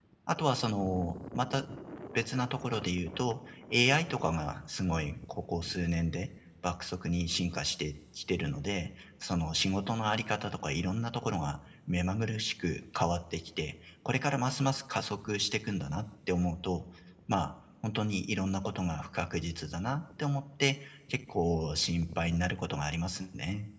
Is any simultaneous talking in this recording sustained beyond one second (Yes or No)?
No